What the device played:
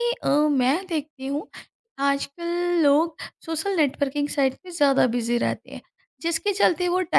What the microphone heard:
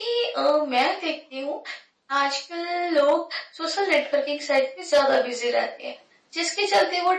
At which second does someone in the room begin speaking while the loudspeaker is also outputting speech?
none

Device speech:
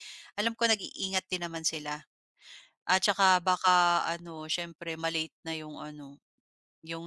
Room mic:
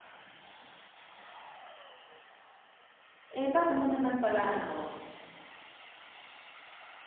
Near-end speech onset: 3.3 s

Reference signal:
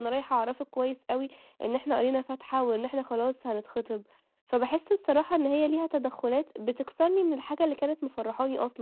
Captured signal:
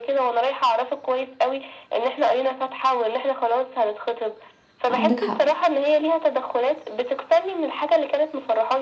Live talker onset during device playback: 4.9 s

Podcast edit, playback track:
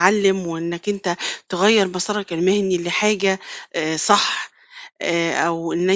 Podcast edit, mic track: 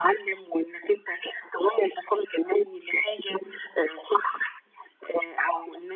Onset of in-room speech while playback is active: none

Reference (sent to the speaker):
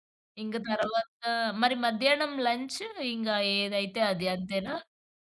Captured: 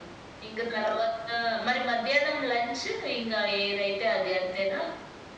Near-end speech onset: none

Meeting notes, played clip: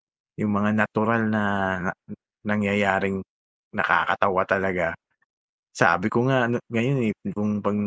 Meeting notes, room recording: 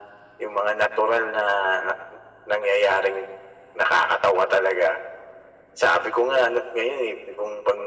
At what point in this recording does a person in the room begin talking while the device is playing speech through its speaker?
none

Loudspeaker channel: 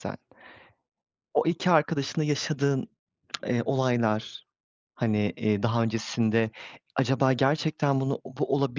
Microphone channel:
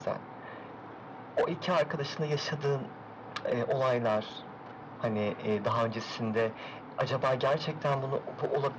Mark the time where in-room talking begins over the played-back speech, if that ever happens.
none

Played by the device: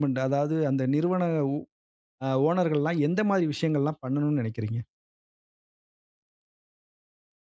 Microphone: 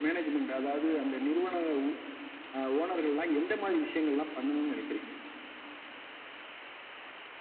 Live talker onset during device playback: none

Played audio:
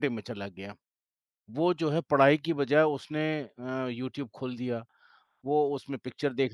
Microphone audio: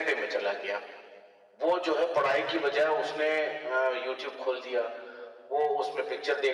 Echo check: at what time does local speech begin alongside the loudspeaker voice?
none

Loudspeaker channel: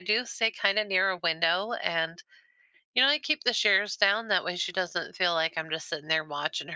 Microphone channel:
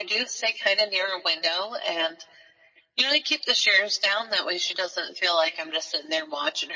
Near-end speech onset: none

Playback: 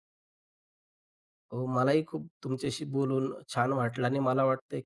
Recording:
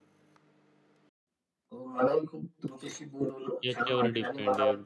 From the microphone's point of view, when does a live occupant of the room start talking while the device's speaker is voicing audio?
3.6 s

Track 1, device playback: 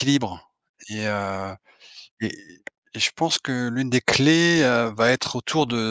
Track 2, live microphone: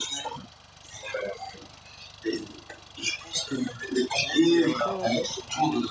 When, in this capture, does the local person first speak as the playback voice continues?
4.3 s

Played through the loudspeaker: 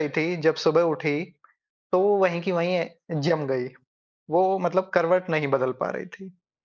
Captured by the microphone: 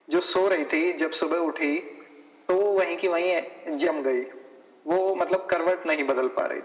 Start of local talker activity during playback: none

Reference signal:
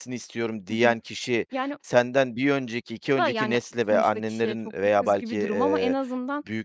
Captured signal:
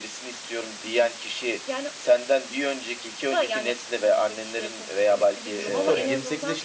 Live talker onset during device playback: 5.1 s

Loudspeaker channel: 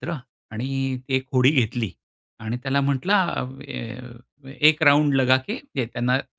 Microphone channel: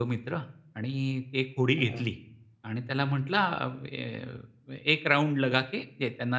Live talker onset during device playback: 1.8 s

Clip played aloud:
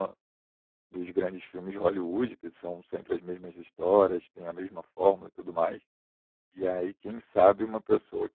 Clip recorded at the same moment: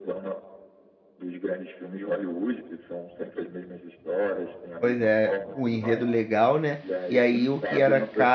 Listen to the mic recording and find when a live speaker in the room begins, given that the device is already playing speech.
4.8 s

